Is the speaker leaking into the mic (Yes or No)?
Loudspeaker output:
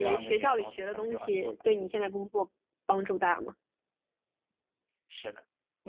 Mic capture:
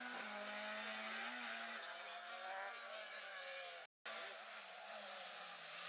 No